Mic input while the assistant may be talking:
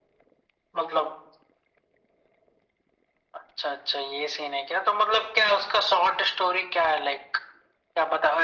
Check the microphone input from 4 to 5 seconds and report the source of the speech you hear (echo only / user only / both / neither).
echo only